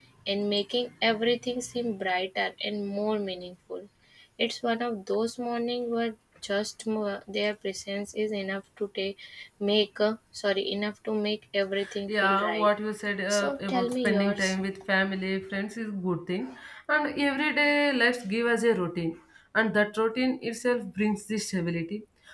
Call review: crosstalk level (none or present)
present